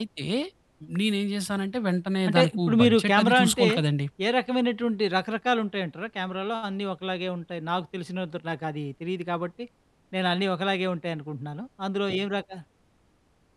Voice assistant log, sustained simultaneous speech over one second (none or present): present